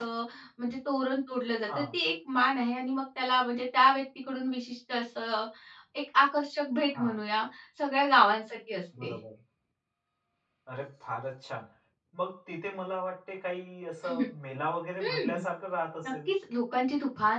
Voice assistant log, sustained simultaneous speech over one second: none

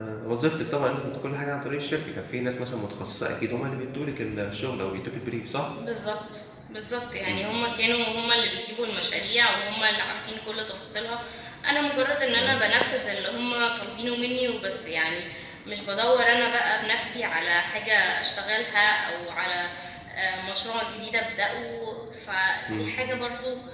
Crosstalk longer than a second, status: none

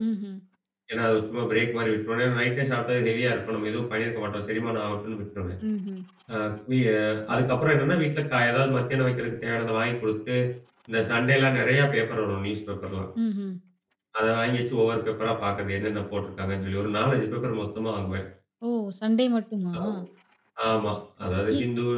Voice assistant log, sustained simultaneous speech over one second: none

